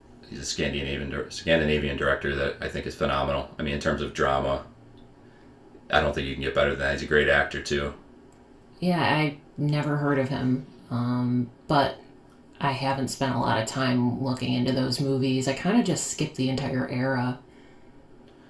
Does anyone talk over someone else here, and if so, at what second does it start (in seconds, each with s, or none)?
none